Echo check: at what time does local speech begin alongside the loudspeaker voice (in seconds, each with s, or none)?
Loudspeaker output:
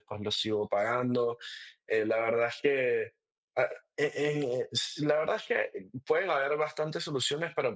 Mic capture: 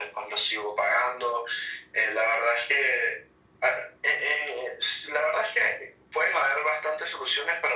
none